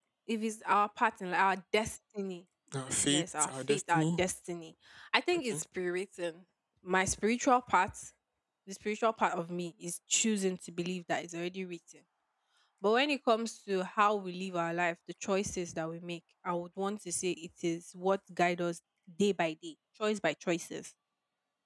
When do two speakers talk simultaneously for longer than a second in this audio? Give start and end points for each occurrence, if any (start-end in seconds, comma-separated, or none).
3.0-4.2